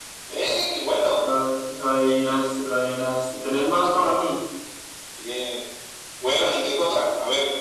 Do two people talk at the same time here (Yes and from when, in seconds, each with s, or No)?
No